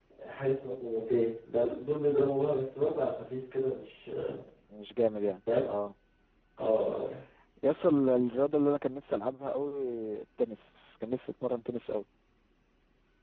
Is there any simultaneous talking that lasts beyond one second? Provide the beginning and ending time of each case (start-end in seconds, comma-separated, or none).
none